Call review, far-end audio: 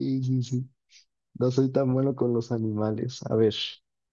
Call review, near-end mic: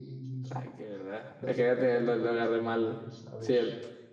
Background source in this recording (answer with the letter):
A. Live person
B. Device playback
B